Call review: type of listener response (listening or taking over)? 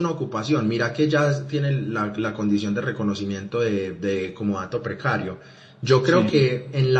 listening